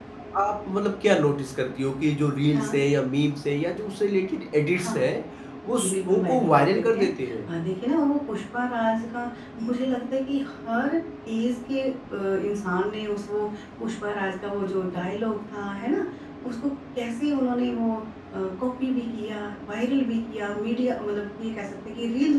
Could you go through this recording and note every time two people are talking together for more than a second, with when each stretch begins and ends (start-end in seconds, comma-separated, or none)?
5.8-7.1